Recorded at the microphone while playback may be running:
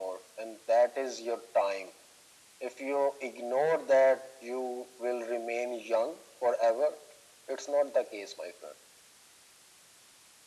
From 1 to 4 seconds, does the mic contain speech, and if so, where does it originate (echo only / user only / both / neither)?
echo only